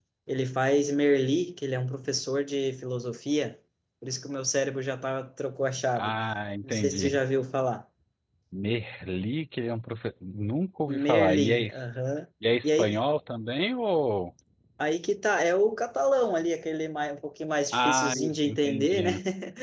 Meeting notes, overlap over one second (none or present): present